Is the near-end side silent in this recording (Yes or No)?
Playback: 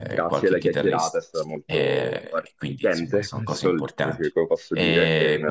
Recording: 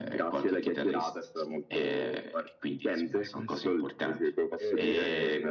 No